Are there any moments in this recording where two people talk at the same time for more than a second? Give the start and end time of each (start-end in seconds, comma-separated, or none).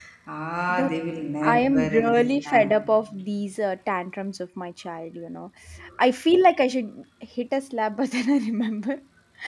1.4-2.7